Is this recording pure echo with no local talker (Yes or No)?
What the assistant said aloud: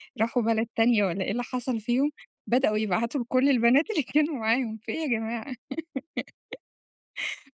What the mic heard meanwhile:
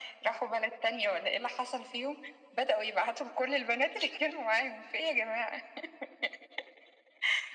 Yes